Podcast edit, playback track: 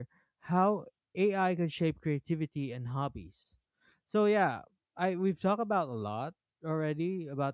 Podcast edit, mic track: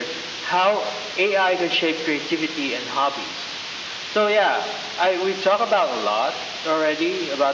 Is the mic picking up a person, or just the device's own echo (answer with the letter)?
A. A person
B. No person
B